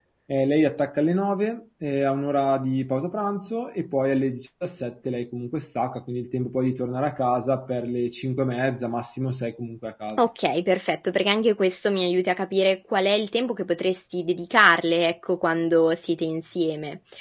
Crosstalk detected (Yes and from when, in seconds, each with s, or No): No